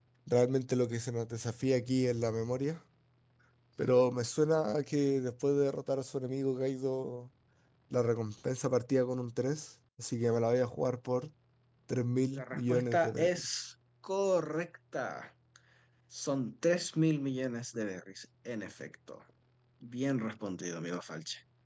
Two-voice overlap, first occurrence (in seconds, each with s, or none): 12.3 s